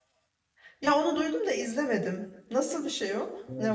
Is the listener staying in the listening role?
No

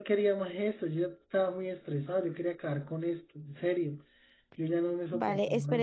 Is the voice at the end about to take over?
Yes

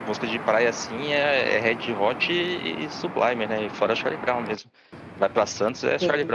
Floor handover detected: Yes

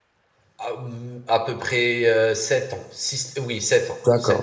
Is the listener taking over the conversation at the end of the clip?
Yes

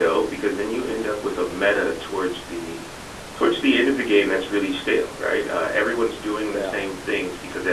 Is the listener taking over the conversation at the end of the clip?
No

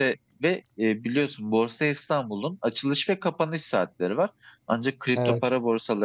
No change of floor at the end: Yes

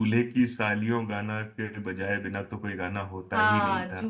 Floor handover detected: Yes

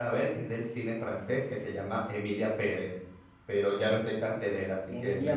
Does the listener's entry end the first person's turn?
Yes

